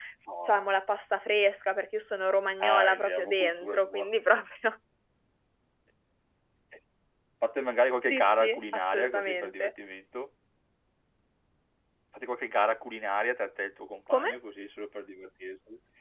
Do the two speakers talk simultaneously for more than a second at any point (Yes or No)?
Yes